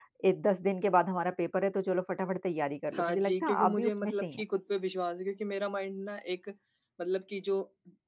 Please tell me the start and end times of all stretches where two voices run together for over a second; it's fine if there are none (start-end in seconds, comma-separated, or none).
2.9-4.4